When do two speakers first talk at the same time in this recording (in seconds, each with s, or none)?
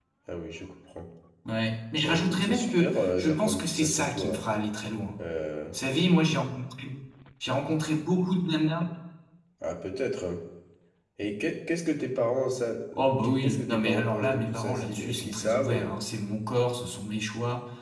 2.0 s